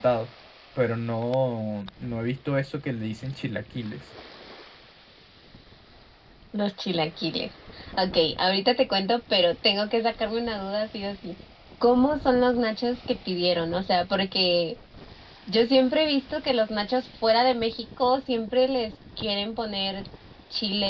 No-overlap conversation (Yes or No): Yes